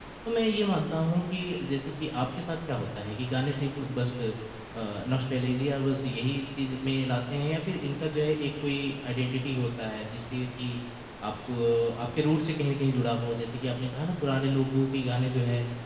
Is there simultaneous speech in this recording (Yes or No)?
No